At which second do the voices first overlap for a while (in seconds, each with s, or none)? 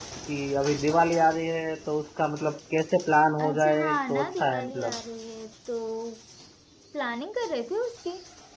3.4 s